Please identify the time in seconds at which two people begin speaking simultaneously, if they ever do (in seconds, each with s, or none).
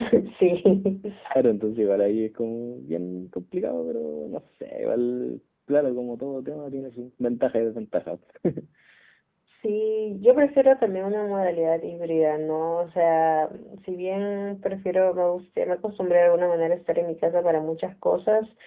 none